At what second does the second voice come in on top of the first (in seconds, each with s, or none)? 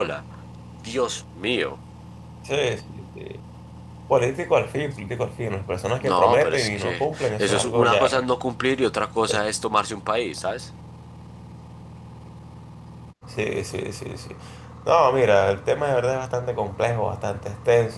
6.0 s